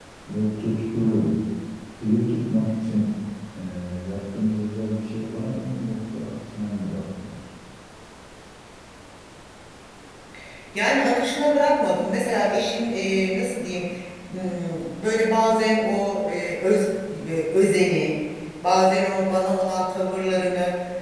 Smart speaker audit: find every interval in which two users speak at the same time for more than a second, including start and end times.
none

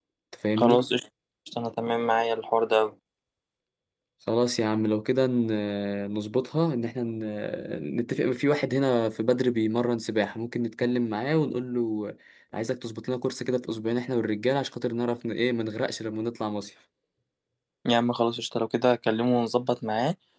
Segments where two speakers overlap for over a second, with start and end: none

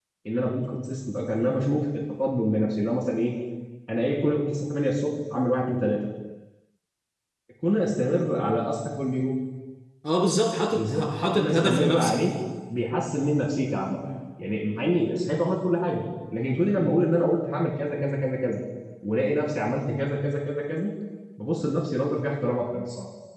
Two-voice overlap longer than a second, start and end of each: 10.7-12.1

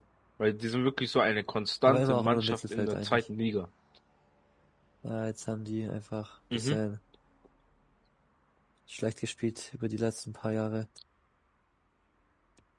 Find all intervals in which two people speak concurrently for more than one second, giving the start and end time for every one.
1.9-3.2

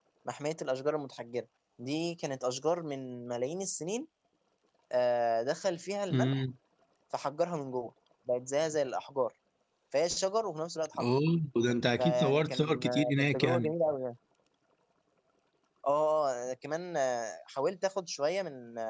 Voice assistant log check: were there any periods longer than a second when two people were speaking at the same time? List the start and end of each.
12.0-13.7

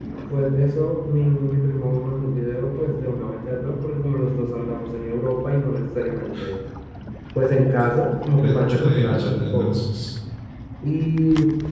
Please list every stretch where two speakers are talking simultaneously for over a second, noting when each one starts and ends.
8.4-9.8

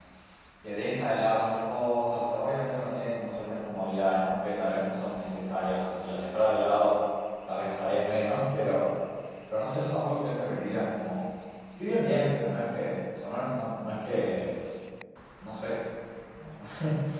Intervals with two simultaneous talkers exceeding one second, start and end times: none

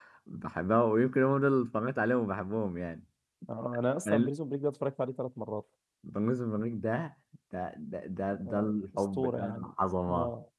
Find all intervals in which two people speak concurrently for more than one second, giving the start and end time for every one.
8.5-9.7

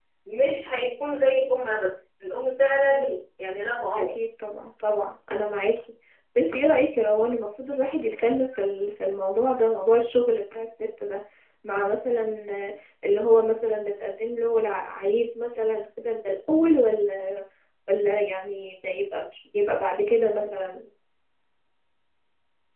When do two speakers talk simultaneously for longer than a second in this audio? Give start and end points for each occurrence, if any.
none

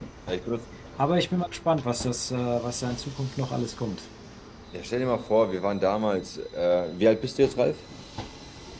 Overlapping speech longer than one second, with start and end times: none

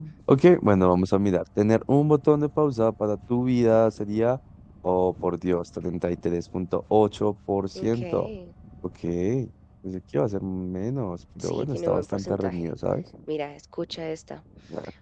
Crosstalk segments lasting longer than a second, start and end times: 11.4-12.7

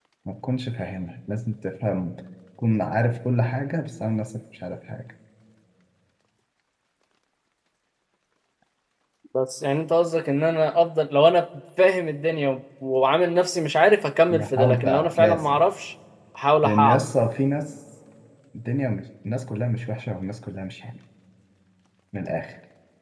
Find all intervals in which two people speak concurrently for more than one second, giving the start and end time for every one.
14.3-15.6

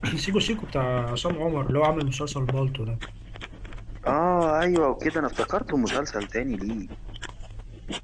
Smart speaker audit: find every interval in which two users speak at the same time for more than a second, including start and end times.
none

